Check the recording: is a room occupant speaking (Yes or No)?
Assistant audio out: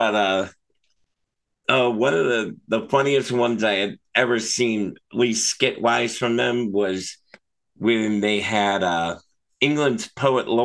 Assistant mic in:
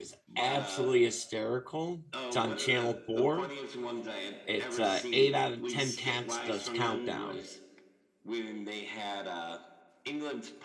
Yes